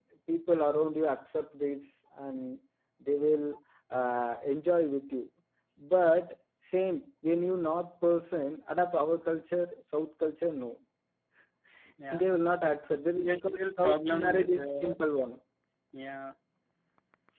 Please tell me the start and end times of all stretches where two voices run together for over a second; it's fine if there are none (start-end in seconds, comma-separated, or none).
13.2-14.9